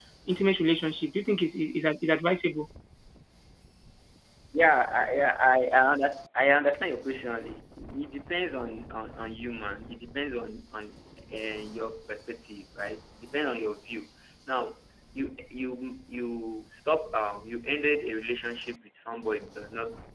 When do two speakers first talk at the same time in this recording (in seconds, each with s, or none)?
none